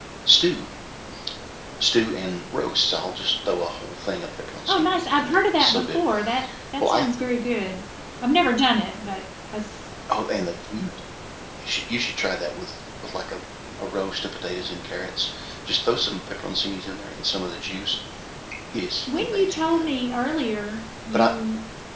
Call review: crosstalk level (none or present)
present